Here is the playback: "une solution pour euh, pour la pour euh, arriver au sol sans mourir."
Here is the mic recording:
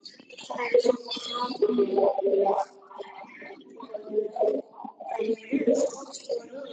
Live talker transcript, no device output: none

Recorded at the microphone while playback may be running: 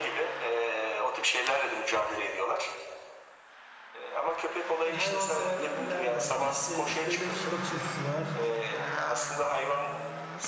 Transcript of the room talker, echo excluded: Hani hayvanseverler var, işte devletin bir bakış açısı var,

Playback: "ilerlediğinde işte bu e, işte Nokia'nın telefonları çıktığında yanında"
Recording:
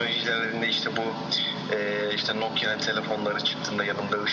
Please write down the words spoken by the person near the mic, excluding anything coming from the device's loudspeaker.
none

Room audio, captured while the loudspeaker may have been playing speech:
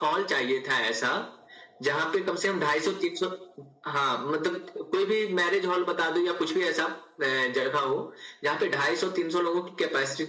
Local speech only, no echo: none

